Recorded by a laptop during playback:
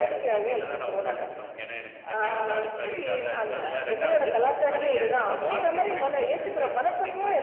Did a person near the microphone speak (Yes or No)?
No